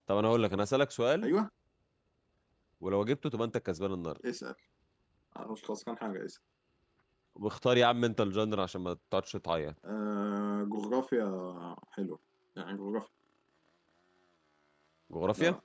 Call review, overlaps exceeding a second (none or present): none